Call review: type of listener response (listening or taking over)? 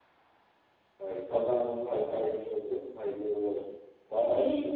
taking over